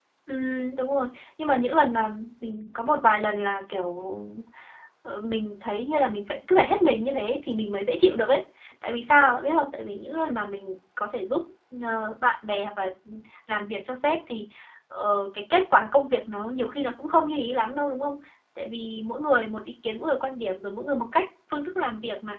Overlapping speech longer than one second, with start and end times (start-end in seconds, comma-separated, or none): none